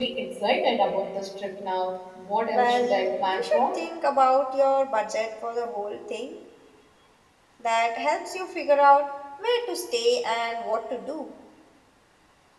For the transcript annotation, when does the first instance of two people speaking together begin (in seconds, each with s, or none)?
2.5 s